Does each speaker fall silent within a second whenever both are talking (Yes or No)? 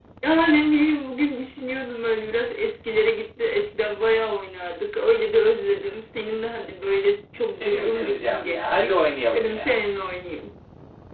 No